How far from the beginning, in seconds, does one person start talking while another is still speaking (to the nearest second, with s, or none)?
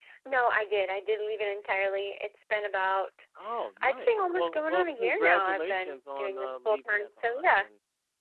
4 s